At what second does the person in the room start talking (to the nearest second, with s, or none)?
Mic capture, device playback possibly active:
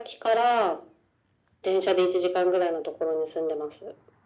none